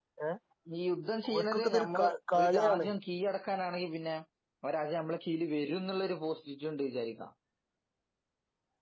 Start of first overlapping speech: 1.3 s

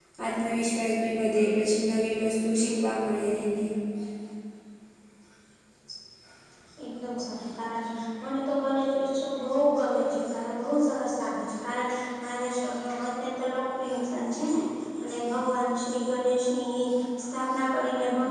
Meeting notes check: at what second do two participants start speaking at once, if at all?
none

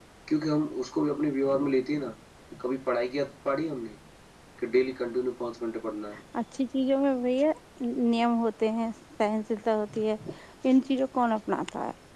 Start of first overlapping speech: none

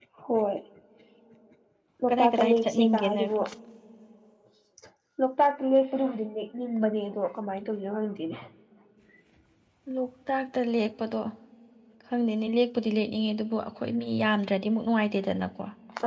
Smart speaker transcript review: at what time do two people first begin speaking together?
2.1 s

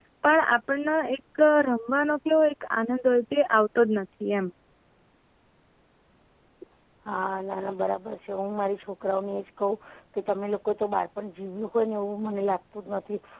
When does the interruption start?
none

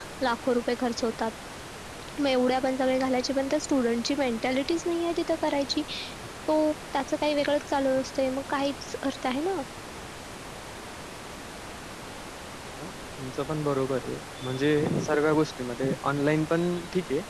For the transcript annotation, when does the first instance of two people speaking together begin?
none

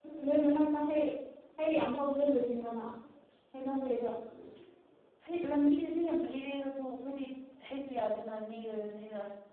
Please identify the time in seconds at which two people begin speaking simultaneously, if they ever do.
none

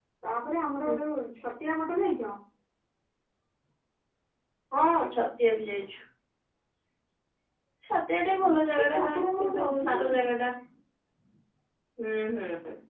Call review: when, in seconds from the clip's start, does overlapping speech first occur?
8.6 s

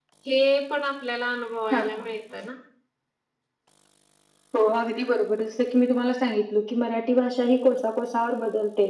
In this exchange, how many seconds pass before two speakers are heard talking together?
none

